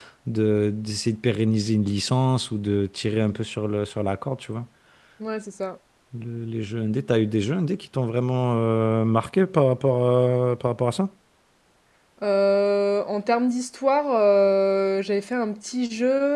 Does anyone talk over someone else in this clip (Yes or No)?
No